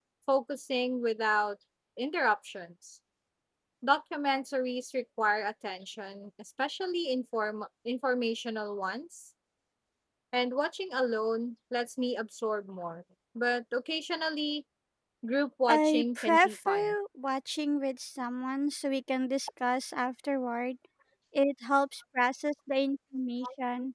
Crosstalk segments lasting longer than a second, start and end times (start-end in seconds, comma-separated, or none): 15.7-16.9